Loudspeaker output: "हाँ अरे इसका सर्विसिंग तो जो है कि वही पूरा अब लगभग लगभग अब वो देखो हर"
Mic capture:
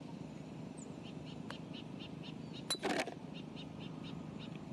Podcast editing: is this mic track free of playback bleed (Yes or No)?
Yes